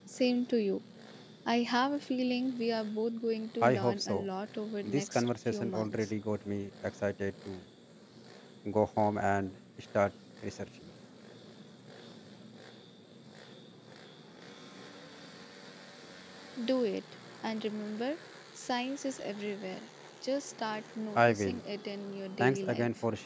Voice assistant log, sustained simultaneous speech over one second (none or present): present